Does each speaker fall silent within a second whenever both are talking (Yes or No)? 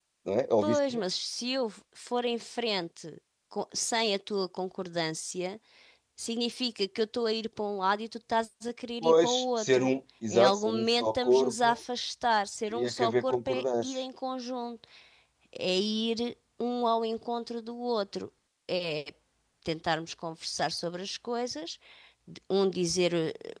No